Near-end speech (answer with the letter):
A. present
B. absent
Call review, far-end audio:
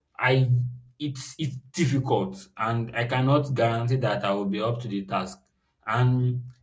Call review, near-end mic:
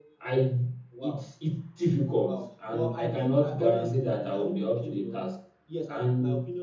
A